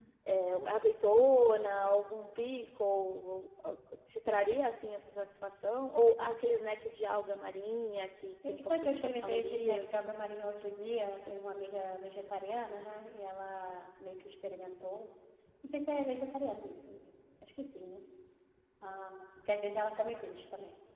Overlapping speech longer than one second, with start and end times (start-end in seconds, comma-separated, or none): 8.6-9.9